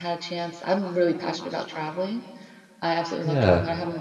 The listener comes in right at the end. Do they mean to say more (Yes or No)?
No